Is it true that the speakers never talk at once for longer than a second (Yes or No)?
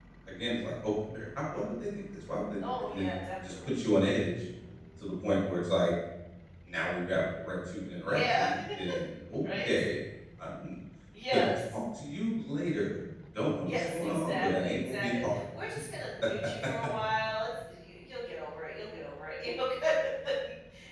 No